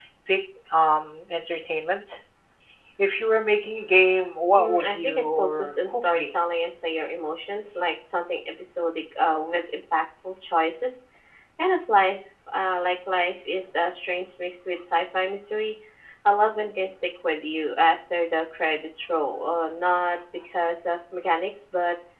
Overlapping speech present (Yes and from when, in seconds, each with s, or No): Yes, from 4.6 s